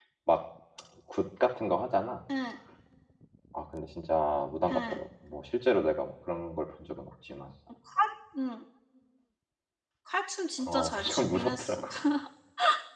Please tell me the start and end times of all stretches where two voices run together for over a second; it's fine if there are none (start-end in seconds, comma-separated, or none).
10.7-11.9